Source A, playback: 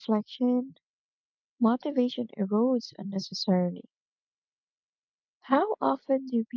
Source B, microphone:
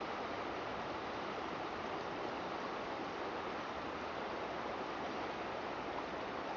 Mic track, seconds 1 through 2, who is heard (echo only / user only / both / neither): neither